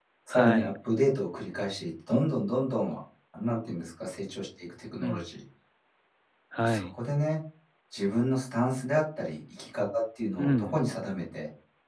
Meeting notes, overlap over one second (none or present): none